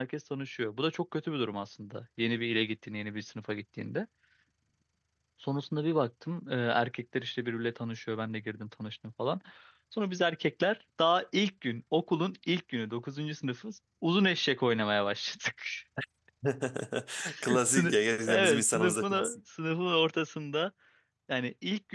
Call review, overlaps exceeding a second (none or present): present